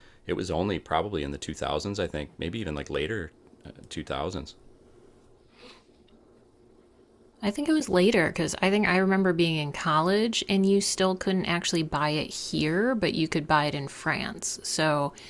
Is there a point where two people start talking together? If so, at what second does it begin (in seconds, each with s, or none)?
none